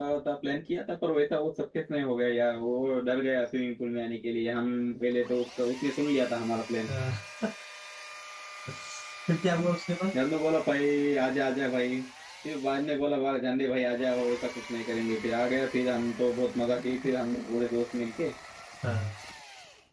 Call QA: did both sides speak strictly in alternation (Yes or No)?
Yes